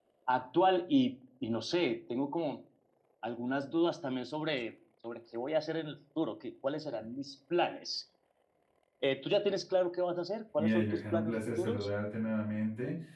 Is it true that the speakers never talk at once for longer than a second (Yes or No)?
No